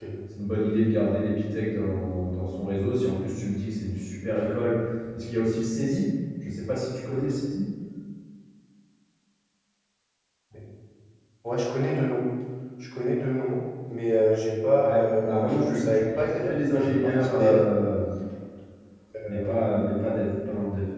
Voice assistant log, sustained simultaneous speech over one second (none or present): present